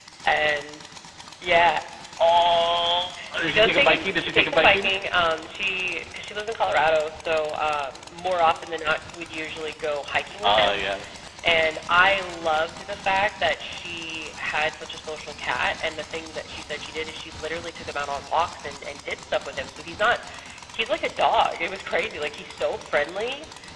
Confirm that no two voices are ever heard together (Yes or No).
No